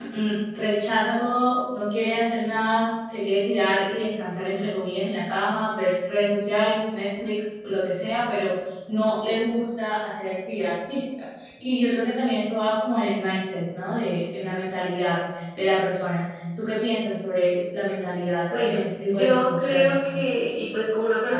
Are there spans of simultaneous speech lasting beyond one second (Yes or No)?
Yes